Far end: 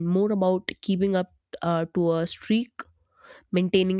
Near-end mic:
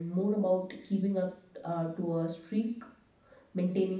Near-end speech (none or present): none